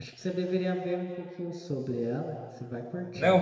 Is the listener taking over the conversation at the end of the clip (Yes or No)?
Yes